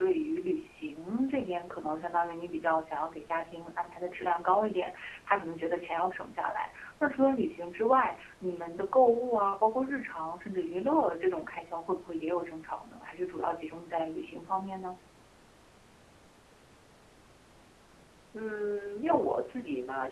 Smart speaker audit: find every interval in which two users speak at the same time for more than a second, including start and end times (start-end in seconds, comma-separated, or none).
none